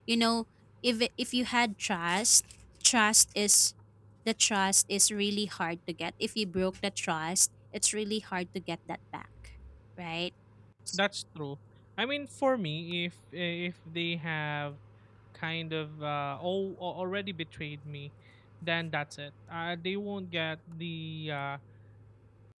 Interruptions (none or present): none